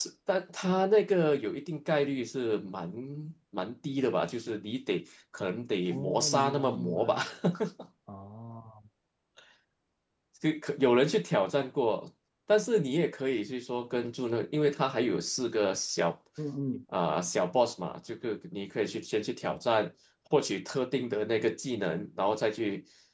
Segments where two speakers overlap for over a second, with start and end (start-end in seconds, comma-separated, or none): 5.9-7.2